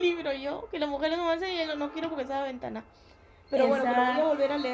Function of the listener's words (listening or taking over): listening